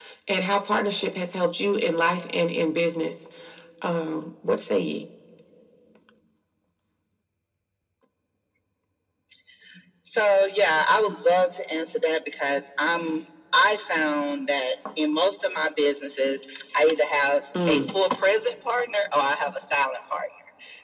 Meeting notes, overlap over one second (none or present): none